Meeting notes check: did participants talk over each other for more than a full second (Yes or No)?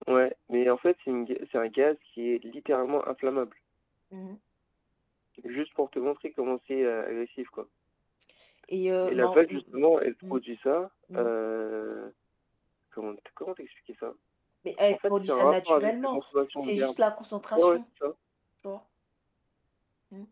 Yes